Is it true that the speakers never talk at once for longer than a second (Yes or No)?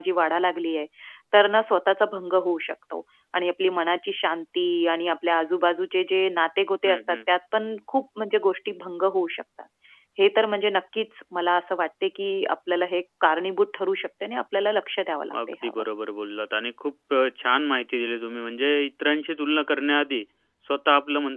Yes